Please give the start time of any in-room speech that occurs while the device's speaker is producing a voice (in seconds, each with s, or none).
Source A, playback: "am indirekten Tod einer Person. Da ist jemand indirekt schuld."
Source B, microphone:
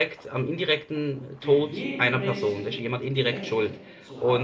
1.4 s